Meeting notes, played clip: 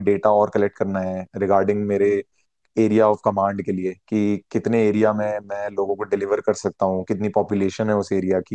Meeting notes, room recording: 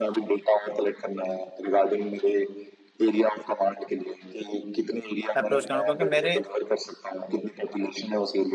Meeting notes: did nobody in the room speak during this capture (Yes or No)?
No